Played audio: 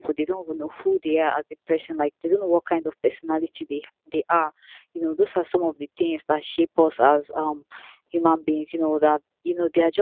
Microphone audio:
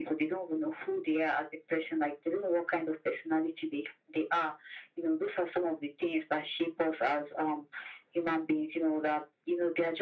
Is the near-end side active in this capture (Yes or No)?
No